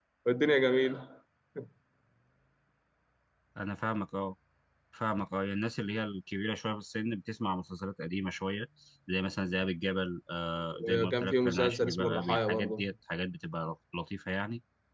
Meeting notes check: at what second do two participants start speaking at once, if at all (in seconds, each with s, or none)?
10.7 s